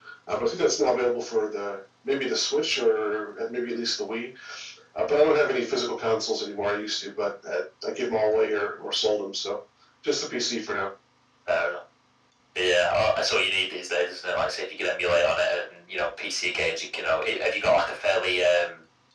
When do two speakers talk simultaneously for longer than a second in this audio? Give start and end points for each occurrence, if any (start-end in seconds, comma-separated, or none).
none